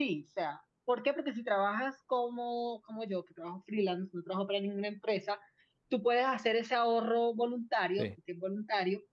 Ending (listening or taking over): listening